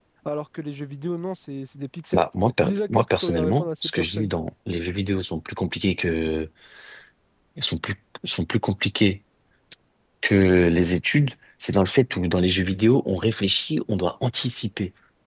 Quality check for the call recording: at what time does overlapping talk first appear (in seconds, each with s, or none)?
2.6 s